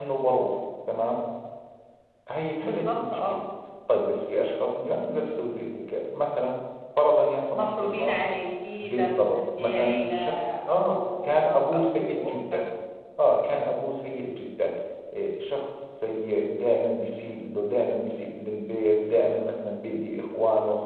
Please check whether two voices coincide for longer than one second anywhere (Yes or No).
Yes